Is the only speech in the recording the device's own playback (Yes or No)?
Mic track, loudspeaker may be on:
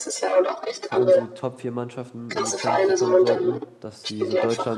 No